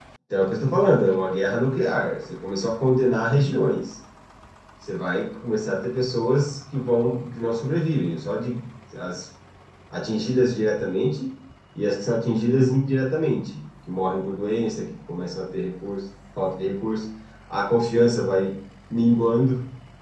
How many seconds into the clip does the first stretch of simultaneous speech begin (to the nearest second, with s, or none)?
none